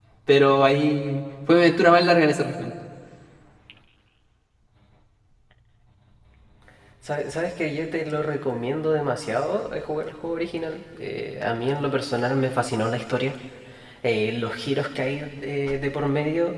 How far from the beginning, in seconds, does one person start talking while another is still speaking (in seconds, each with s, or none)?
none